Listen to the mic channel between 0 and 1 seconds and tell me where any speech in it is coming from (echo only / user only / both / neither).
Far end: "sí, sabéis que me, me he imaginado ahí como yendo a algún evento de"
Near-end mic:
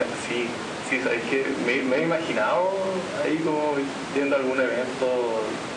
echo only